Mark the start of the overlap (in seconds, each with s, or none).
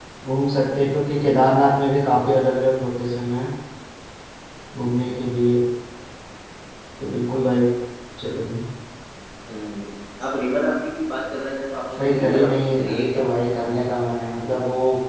12.0 s